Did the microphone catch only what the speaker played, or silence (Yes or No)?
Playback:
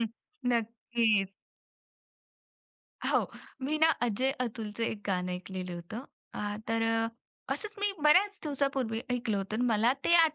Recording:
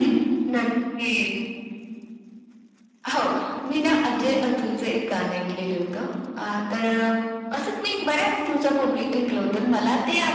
Yes